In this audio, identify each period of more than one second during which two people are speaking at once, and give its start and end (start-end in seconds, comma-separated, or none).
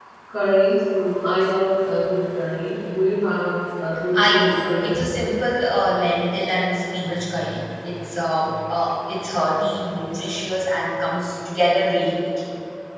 4.1-5.4